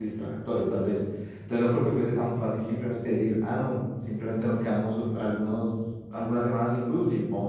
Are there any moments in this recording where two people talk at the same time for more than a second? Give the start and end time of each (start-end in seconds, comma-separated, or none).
none